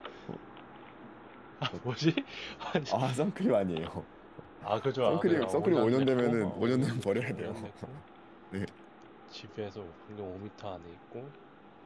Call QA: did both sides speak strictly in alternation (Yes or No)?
No